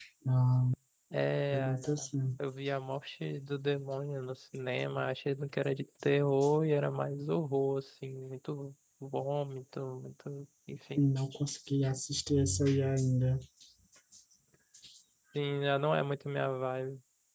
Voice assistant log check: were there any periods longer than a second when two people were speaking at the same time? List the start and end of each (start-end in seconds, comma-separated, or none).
none